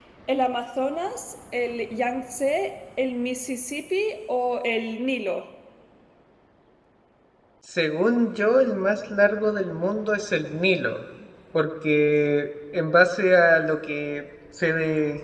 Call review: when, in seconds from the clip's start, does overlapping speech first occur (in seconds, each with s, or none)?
none